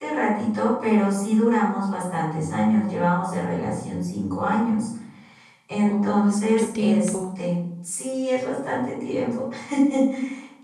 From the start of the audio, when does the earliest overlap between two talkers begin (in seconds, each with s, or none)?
5.8 s